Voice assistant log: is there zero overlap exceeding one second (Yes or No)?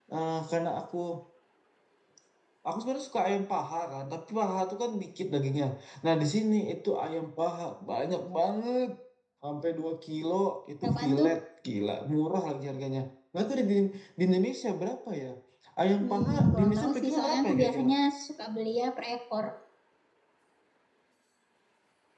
No